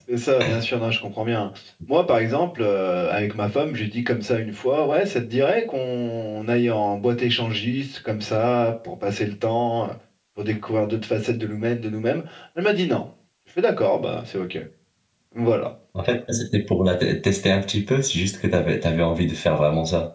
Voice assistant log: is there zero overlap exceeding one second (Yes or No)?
Yes